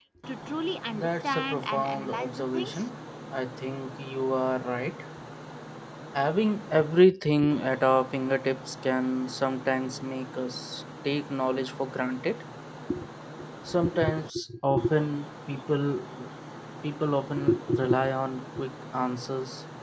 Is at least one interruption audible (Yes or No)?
Yes